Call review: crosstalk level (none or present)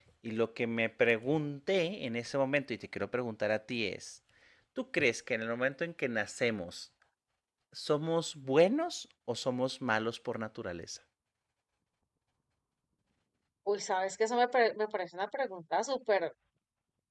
none